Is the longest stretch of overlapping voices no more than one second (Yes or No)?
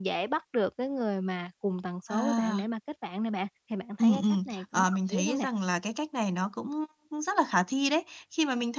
No